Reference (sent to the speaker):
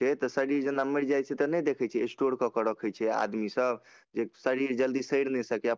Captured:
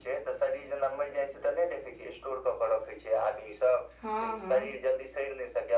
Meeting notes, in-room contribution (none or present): present